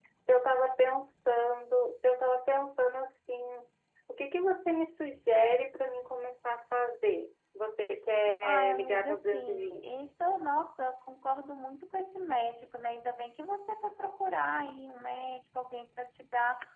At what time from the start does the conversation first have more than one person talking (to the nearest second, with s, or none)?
8 s